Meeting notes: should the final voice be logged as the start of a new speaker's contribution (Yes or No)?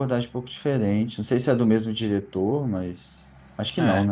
Yes